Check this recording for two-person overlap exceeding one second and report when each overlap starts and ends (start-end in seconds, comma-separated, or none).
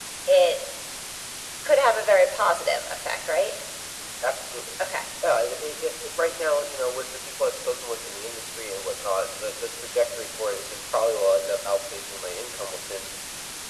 none